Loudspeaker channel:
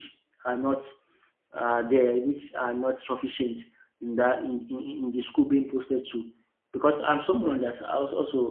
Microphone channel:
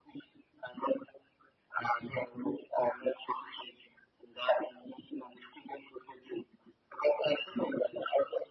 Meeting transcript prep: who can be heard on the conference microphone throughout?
echo only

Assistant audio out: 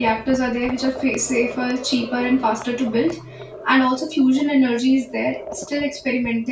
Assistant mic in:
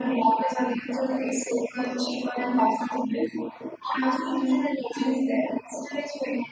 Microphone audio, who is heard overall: echo only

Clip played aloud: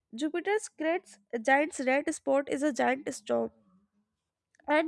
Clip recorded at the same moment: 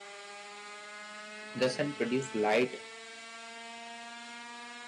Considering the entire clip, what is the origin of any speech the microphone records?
user only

